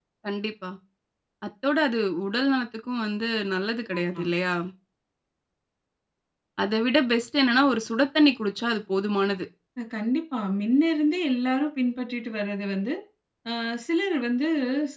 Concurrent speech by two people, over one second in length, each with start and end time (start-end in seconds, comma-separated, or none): none